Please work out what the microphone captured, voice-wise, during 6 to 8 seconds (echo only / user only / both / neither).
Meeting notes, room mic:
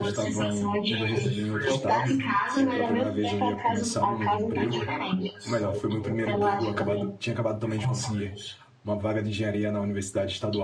both